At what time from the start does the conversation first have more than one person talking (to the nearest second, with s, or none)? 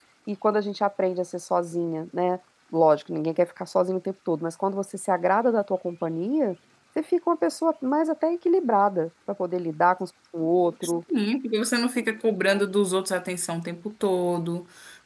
none